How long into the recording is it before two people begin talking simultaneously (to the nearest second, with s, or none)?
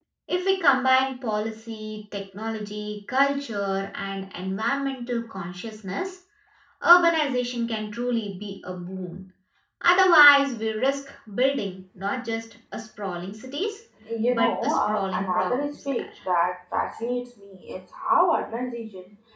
14 s